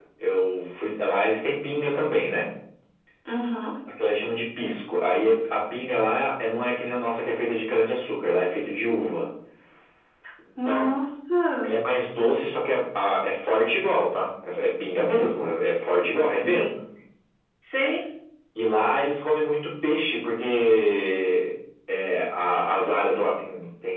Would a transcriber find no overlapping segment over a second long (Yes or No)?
Yes